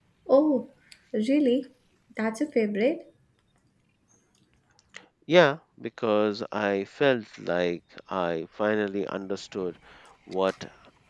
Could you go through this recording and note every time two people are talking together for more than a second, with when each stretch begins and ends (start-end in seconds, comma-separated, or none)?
none